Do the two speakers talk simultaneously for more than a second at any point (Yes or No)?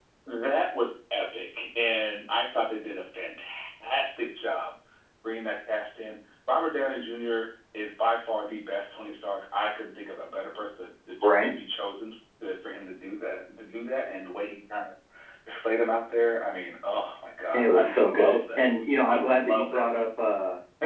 Yes